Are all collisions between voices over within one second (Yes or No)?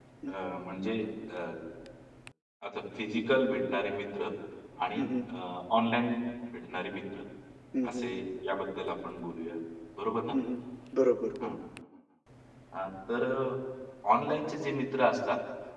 Yes